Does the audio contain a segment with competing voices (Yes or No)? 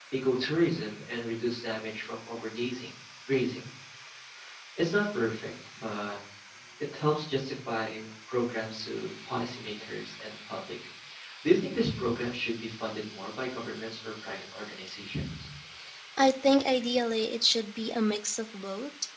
No